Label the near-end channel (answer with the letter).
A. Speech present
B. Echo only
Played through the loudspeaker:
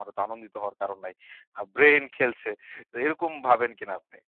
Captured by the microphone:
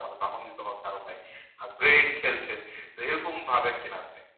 B